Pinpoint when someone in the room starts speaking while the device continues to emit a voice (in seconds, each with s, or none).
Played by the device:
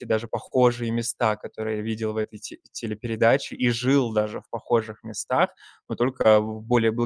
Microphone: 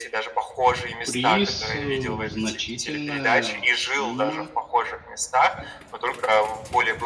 1.0 s